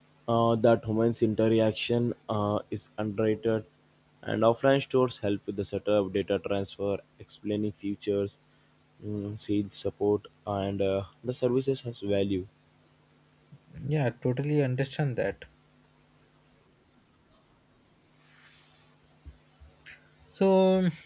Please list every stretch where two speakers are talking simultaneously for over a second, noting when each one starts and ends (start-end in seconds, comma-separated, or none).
none